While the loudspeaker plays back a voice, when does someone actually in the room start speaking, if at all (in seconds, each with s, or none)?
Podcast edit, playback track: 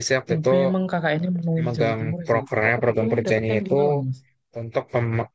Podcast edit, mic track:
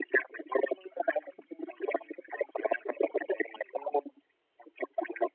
none